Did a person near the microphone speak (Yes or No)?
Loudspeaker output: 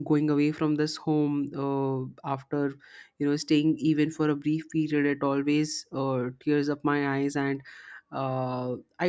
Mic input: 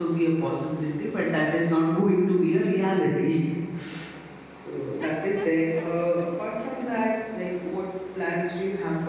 Yes